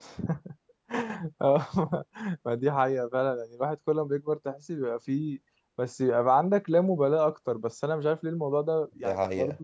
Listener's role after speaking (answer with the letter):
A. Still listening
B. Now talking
A